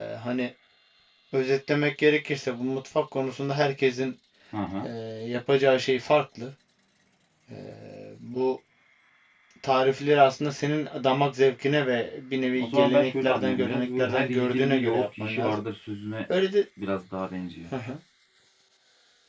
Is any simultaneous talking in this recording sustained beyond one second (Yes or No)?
Yes